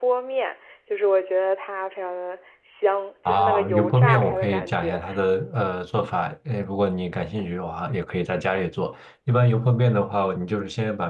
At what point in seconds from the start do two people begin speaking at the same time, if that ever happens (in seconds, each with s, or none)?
3.2 s